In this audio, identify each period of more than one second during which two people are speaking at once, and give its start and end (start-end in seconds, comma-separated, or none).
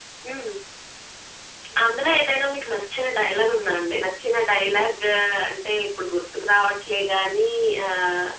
none